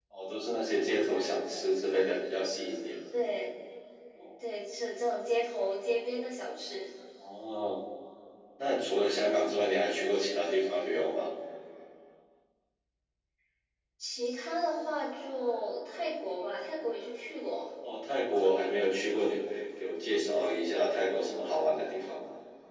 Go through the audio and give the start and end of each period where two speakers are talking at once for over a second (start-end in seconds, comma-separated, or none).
none